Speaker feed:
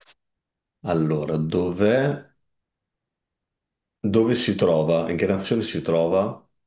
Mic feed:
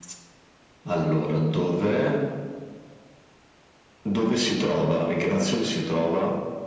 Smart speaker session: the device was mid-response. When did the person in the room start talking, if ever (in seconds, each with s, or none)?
none